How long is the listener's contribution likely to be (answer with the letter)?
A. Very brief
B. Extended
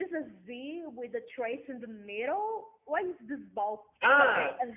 B